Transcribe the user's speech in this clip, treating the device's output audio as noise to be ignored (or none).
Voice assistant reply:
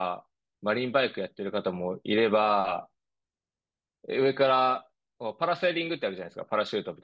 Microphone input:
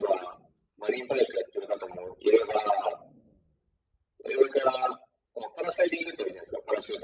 none